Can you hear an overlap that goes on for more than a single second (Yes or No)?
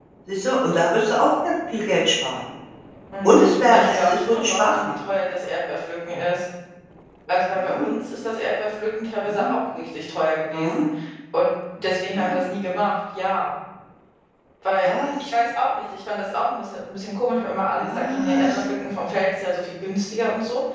Yes